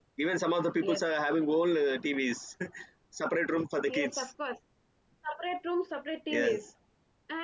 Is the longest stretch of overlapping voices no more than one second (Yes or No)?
Yes